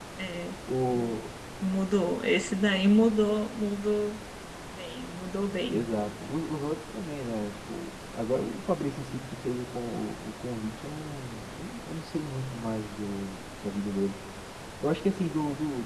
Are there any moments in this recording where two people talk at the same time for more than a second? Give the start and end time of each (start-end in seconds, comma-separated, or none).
none